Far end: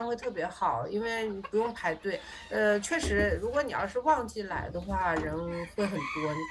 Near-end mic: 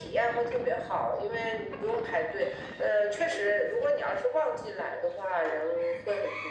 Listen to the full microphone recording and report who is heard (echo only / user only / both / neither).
echo only